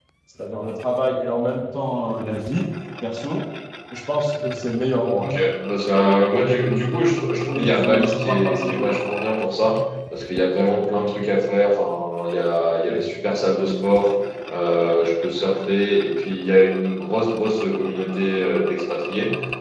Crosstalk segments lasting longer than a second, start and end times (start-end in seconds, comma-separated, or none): 7.6-8.9